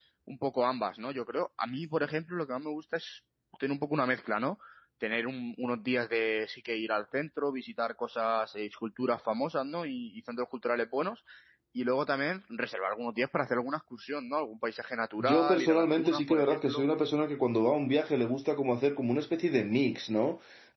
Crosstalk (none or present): present